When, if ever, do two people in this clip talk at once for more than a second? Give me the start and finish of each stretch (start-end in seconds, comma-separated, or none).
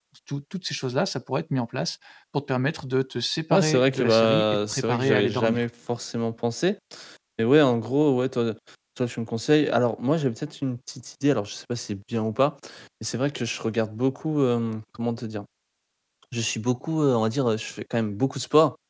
3.5-5.7